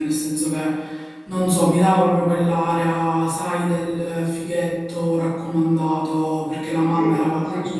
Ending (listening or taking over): listening